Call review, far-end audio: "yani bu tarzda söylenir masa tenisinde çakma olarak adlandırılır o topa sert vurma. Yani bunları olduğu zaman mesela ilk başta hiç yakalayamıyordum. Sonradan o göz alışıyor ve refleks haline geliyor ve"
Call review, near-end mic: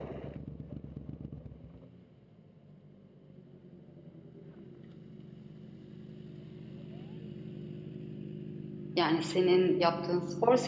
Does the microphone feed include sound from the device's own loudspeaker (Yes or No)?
No